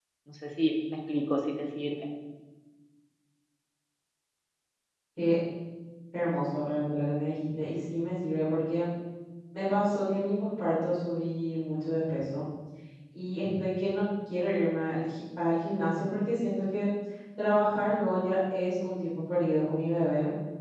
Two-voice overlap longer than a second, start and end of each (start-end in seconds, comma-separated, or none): none